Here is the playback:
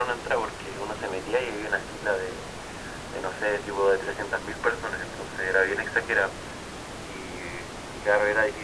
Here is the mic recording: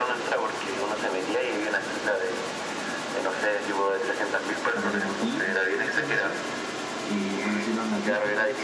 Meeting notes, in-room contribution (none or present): present